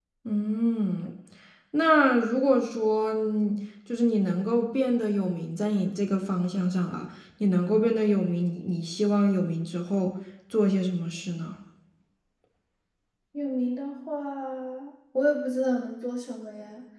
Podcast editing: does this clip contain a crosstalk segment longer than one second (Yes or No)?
No